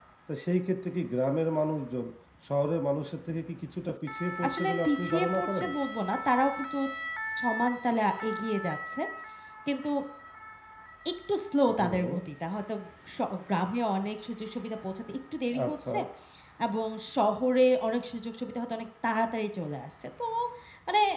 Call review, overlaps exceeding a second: present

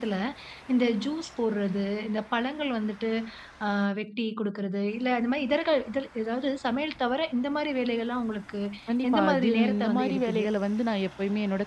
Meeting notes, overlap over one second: present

